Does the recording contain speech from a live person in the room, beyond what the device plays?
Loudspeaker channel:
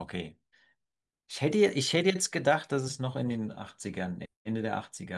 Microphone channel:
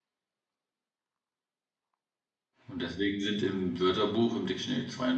Yes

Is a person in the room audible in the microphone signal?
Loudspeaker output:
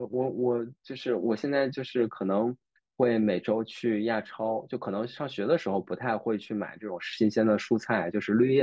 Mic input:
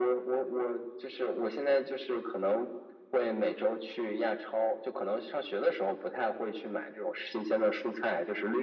No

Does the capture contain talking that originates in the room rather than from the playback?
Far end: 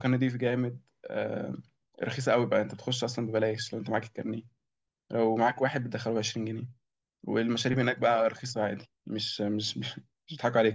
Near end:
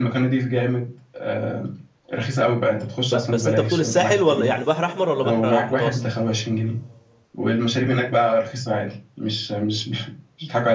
Yes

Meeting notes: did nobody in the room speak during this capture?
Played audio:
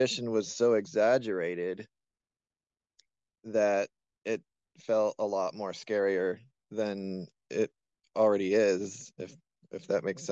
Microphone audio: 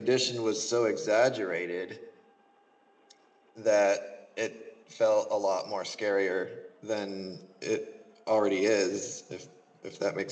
Yes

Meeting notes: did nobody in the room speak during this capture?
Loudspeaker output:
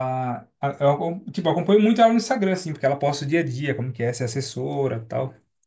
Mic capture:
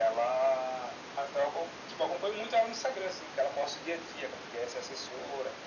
Yes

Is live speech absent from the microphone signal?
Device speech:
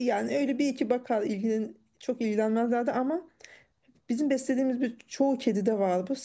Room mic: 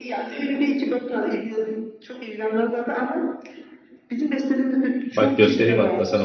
No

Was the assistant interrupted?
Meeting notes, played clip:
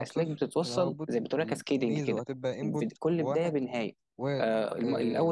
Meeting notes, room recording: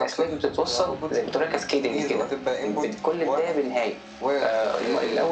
No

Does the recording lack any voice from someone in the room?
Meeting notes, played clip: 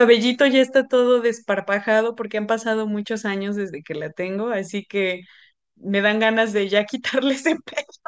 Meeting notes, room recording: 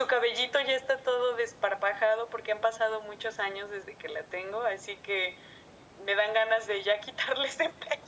Yes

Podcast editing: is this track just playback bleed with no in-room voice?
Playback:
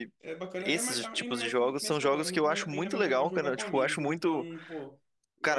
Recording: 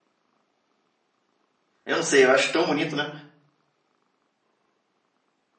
No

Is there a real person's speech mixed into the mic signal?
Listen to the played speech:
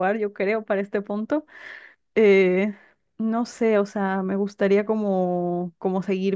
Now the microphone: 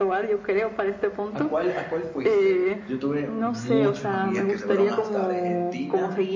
Yes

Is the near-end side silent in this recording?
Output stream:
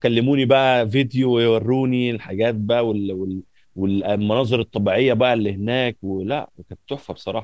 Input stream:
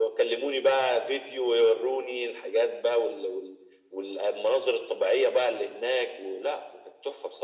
Yes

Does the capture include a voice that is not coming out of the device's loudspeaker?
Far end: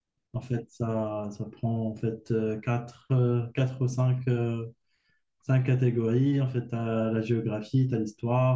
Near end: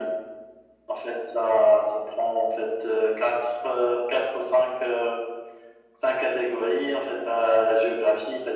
No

